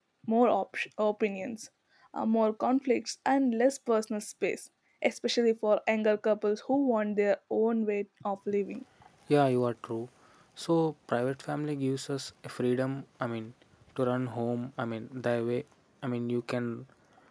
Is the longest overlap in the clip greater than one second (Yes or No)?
No